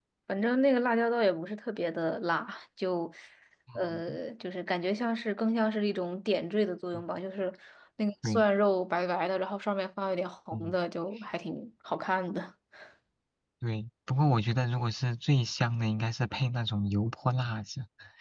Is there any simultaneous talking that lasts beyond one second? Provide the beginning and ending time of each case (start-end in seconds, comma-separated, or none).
none